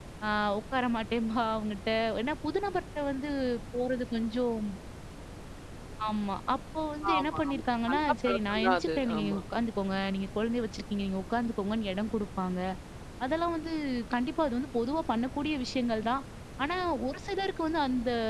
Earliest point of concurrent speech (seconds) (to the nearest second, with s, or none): 7 s